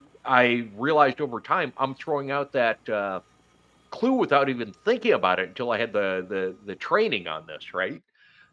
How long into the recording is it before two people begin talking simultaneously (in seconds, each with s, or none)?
none